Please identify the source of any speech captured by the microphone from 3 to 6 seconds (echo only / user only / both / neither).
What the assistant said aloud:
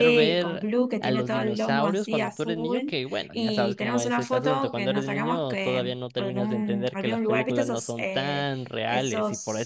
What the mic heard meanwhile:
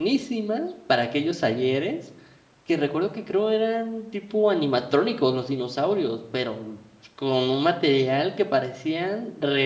user only